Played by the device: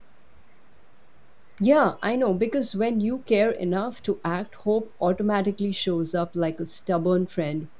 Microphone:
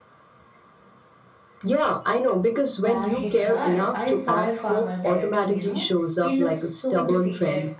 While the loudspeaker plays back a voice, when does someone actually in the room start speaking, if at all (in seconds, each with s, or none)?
2.7 s